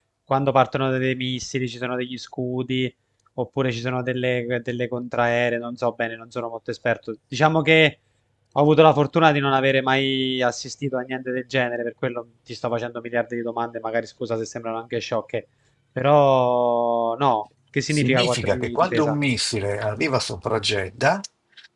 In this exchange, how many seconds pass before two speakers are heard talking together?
17.9 s

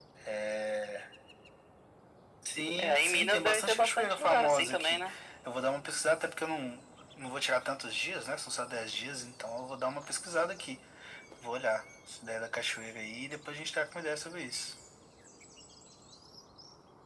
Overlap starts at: 2.8 s

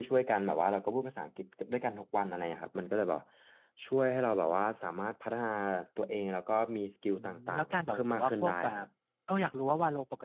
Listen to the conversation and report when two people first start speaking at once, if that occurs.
7.2 s

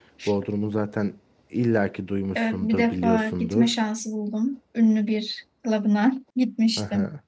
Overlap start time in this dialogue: 2.4 s

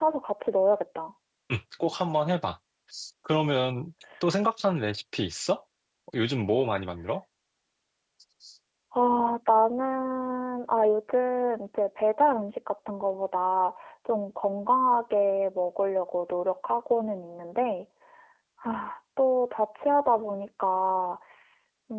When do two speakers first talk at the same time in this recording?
none

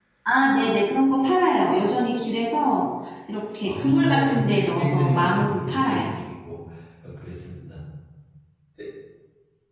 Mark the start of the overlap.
3.7 s

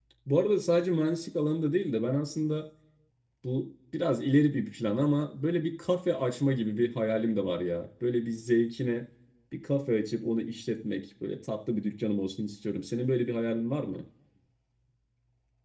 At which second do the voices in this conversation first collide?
none

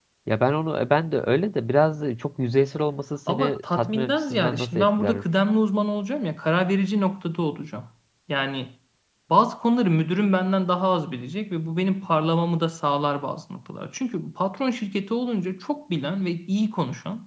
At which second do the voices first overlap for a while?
3.3 s

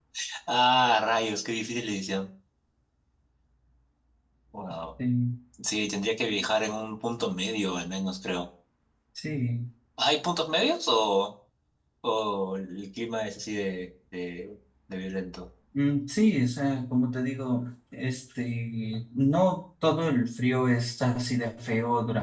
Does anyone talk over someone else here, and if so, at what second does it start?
none

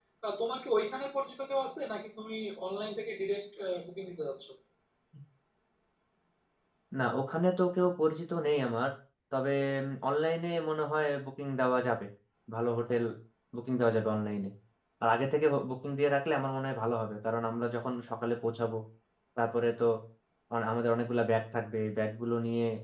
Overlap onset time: none

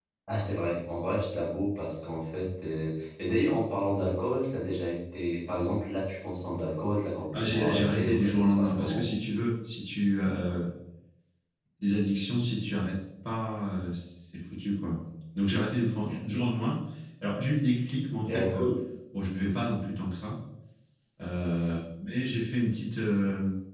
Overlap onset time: 7.3 s

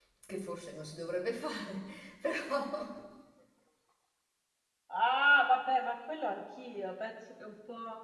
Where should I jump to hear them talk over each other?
none

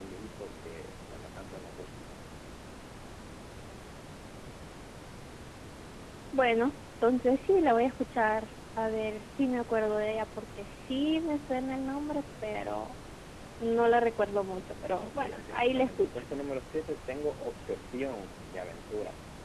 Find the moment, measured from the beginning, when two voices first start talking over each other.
15.0 s

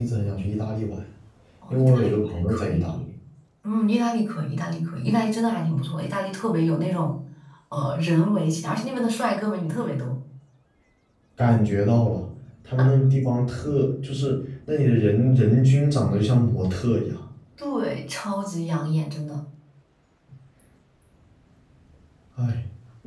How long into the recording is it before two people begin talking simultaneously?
1.7 s

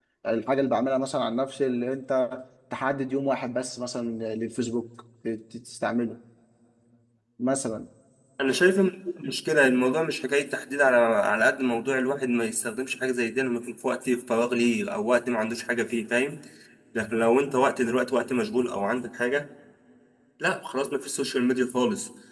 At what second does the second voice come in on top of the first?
none

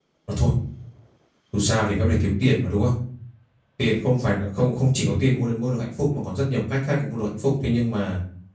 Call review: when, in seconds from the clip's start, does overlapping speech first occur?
none

